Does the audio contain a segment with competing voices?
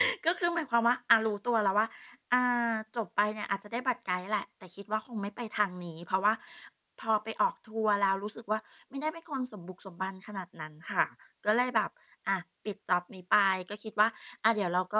No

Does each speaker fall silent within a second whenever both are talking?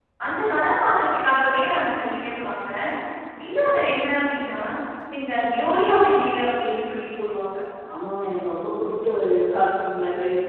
Yes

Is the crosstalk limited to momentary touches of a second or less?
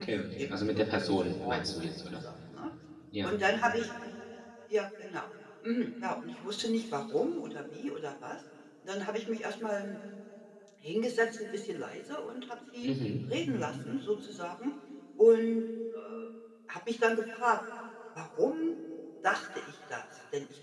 No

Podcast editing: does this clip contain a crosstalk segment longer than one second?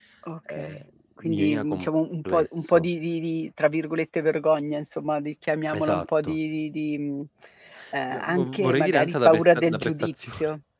Yes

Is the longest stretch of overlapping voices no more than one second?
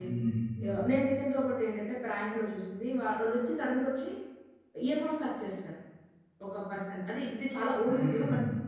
Yes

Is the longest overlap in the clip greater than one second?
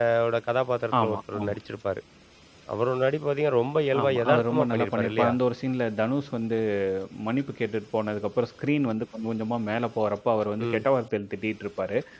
Yes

